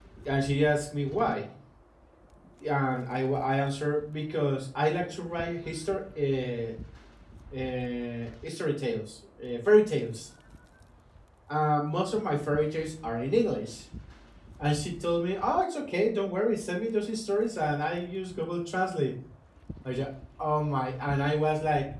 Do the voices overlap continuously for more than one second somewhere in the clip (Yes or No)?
No